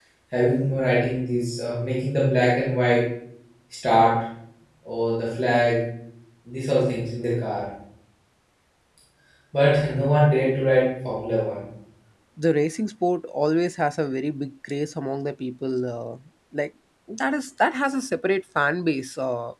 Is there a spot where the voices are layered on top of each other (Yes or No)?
No